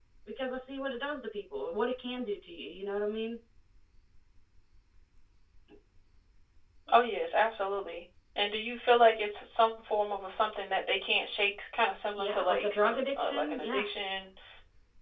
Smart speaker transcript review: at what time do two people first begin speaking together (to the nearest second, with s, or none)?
12 s